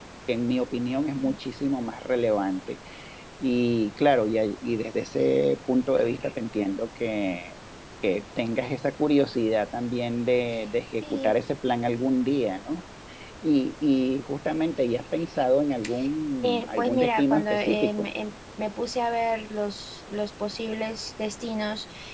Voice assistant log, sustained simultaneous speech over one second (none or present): present